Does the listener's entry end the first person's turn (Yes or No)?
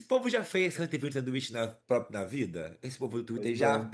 No